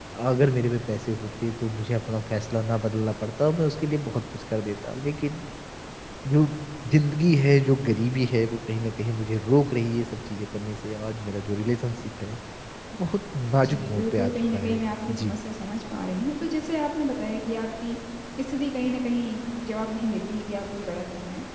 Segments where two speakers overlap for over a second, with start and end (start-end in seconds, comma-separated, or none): 13.6-15.4